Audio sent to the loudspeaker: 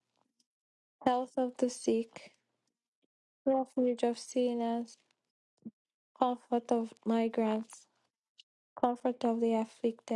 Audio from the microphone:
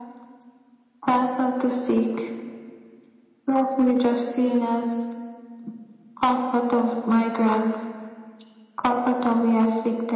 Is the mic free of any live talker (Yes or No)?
Yes